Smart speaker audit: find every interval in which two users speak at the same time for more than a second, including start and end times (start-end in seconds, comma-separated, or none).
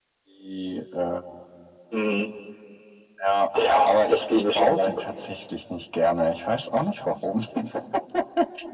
3.5-5.0